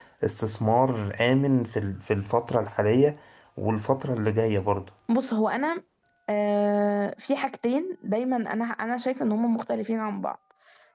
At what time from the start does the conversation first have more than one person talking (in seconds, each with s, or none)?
none